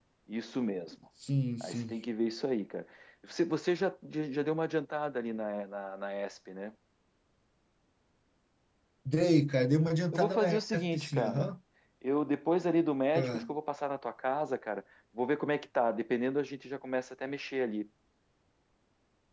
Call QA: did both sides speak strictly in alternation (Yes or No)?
No